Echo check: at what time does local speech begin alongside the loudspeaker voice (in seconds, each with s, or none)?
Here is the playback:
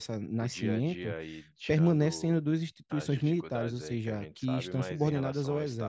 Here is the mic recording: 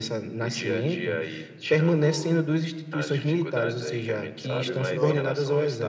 4.4 s